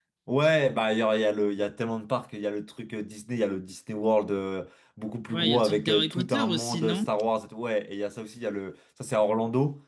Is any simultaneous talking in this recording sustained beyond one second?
Yes, from 5.3 s

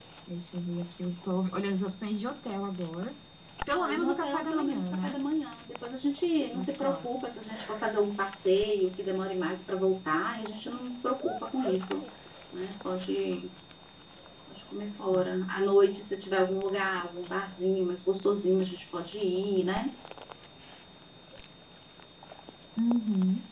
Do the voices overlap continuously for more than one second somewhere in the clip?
Yes, from 3.7 s

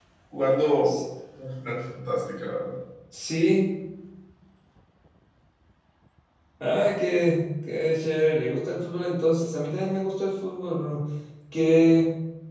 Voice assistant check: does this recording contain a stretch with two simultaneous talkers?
No

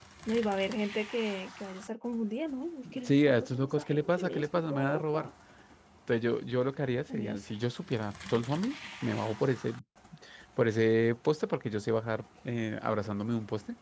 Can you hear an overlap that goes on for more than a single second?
Yes, from 3.0 s

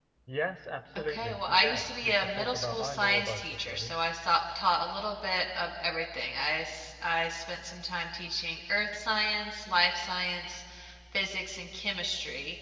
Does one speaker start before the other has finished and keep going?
Yes, from 1.0 s

